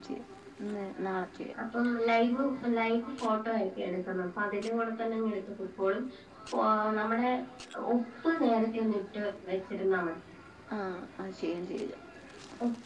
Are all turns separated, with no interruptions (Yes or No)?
Yes